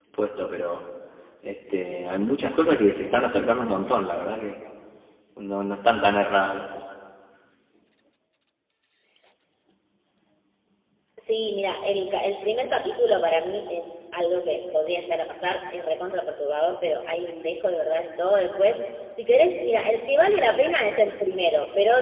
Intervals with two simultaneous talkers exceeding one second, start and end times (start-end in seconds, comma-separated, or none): none